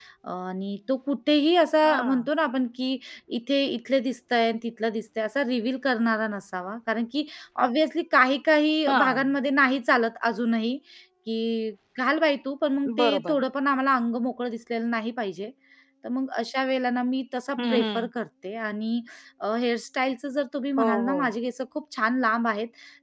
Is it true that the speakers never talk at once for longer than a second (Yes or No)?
Yes